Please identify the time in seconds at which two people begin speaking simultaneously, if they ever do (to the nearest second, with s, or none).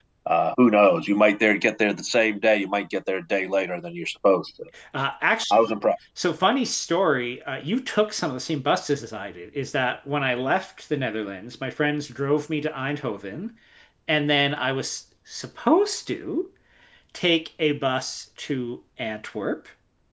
none